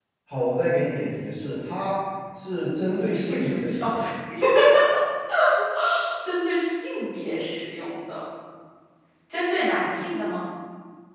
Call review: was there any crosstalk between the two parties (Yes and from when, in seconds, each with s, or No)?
Yes, from 2.9 s